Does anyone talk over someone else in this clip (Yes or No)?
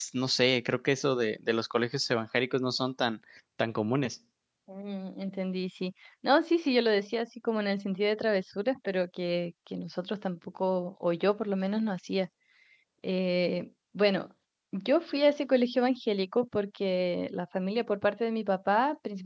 No